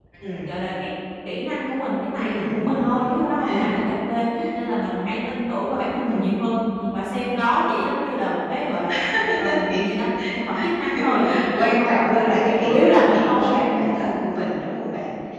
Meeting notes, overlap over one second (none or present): present